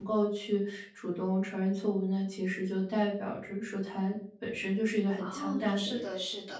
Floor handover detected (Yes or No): Yes